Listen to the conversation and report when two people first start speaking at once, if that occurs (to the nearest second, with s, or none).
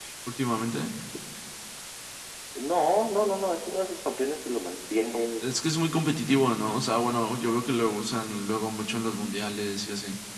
none